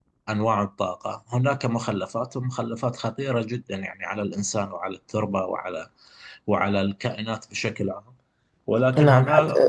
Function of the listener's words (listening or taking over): taking over